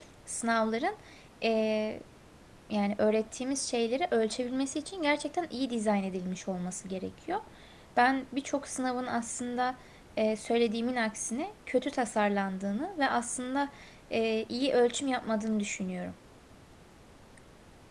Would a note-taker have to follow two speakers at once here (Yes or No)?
No